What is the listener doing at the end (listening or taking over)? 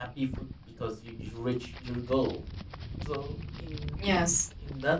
listening